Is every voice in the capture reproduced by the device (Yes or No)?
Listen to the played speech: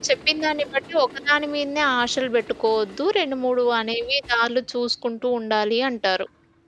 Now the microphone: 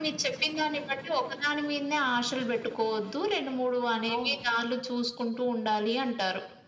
No